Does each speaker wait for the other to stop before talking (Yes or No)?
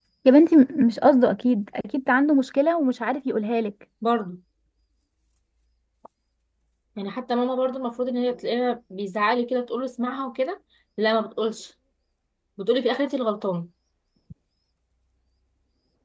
Yes